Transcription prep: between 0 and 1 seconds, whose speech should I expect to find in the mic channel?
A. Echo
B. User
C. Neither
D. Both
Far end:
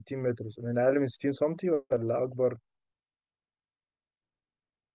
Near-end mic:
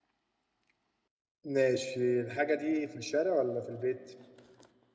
C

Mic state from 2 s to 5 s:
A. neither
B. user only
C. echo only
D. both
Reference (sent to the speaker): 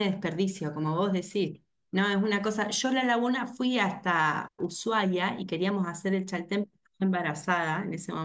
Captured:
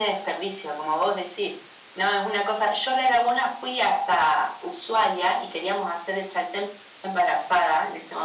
C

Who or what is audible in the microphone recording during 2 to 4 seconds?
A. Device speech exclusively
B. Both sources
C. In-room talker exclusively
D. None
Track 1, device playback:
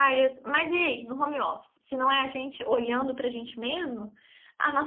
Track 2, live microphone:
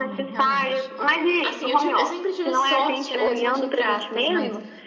B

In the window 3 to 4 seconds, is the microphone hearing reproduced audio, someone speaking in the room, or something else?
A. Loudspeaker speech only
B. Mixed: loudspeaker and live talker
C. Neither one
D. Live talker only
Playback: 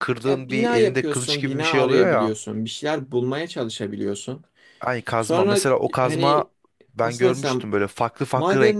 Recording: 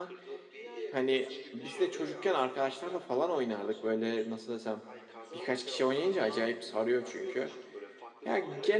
B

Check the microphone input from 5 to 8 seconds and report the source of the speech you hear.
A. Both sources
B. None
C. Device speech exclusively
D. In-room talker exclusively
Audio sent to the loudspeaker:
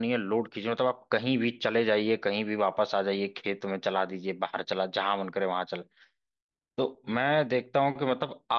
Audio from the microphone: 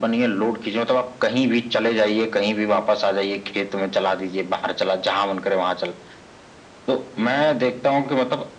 C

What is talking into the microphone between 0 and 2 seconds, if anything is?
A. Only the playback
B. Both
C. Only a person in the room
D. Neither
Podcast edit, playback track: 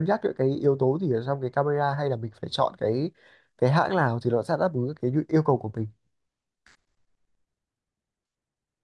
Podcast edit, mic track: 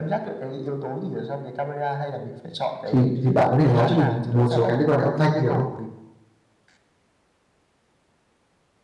A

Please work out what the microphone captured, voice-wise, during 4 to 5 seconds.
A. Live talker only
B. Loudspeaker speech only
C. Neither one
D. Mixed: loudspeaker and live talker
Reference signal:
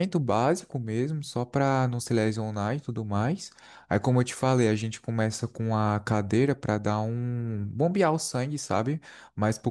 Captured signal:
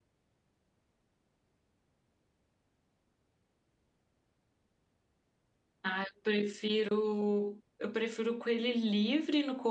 C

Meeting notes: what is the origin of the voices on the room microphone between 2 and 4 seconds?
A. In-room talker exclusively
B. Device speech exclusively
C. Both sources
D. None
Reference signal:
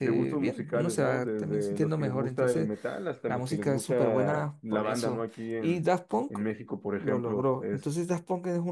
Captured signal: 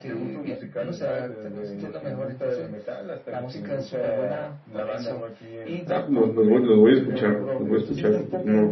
B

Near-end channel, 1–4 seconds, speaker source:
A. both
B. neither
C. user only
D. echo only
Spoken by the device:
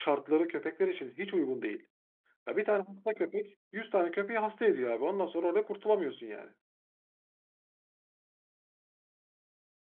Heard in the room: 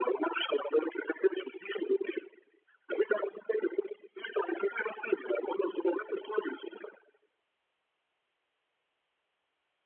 D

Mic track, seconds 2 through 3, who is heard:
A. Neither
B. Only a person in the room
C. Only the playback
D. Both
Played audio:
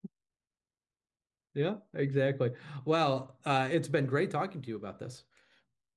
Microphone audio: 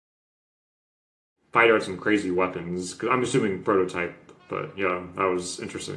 B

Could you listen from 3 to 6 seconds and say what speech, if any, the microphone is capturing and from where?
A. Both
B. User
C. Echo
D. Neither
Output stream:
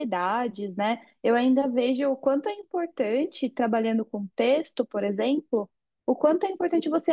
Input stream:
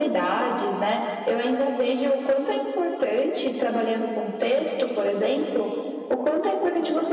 C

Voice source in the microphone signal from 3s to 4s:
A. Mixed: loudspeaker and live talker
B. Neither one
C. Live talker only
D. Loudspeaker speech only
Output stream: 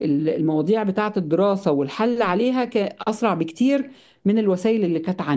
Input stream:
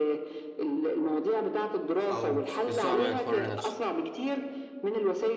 A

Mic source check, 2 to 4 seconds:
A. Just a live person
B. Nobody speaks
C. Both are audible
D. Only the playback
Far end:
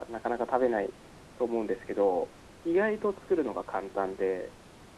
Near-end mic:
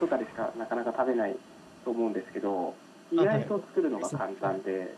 C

